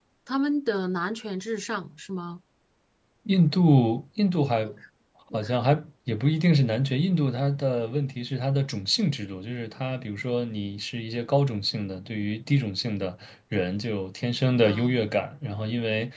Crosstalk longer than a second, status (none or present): none